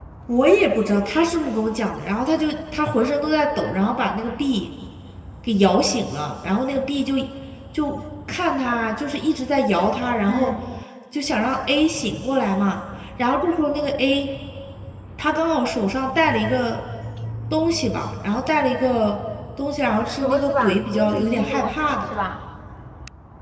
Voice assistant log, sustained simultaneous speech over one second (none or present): present